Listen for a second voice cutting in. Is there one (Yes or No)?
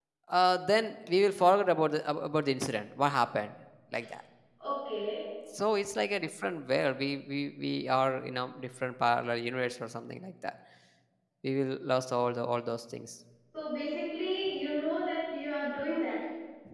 No